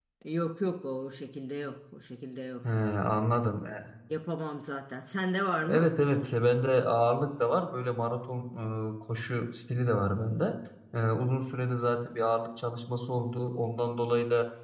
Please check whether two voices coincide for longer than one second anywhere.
No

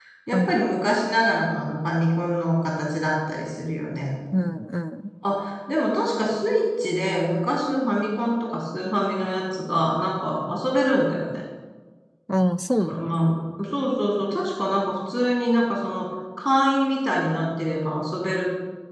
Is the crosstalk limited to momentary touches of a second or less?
Yes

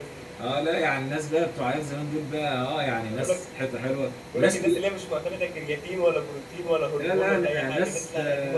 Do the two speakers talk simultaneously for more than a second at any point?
Yes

